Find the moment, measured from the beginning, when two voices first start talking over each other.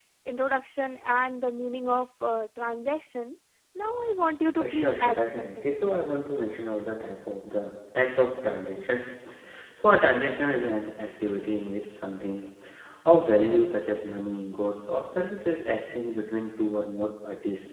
4.6 s

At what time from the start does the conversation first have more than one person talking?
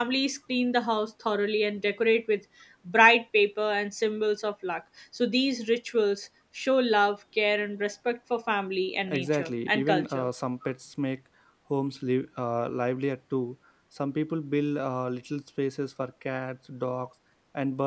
9.1 s

